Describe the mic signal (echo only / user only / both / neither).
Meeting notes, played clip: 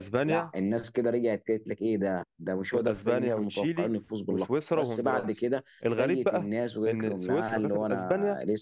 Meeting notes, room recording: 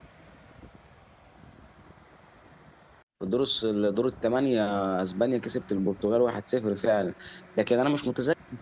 user only